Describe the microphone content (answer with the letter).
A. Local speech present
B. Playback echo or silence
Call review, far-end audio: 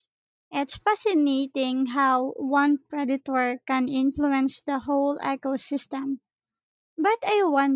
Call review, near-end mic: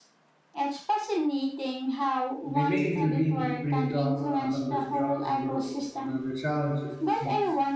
A